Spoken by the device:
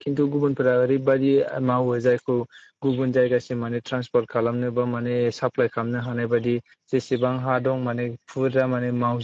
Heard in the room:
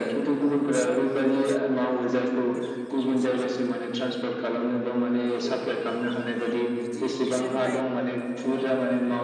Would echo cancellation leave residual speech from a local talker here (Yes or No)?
Yes